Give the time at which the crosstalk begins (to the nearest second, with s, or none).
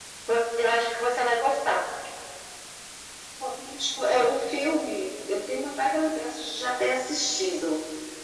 none